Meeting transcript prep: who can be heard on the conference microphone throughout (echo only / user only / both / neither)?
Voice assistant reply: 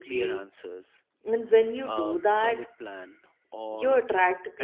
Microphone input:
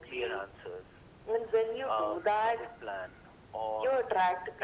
echo only